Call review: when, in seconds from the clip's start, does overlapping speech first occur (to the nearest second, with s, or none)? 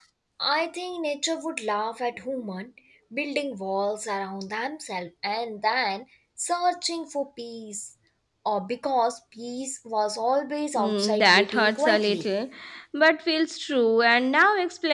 11 s